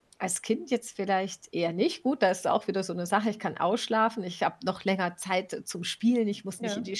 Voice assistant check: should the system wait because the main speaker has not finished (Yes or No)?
Yes